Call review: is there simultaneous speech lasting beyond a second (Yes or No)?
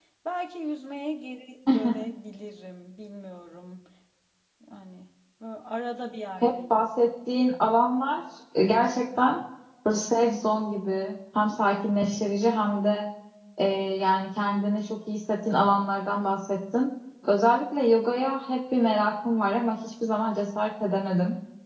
No